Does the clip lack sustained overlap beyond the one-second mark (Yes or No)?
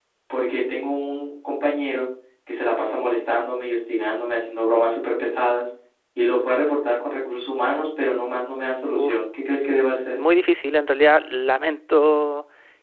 Yes